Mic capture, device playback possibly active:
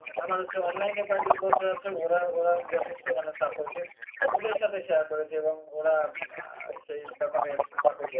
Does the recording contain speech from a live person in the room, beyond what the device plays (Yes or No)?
Yes